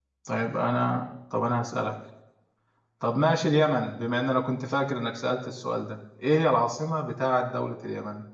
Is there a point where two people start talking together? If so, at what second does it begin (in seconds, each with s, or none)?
none